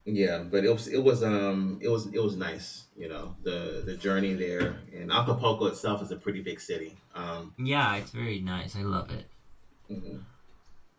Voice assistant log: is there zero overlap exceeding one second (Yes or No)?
Yes